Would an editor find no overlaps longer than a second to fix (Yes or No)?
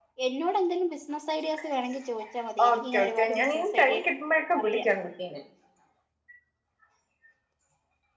No